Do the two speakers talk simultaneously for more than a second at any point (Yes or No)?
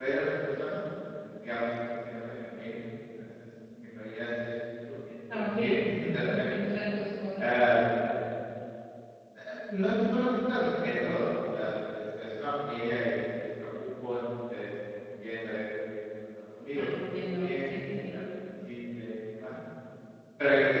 Yes